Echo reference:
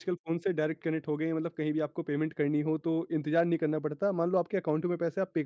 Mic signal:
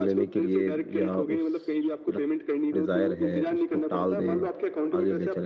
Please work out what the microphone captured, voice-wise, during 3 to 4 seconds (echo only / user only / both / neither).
both